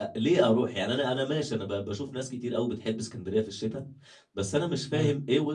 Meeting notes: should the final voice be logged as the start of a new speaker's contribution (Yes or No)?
No